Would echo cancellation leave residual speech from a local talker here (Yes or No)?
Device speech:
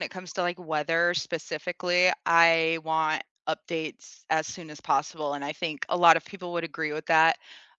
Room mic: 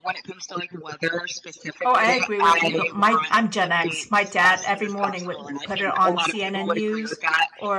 Yes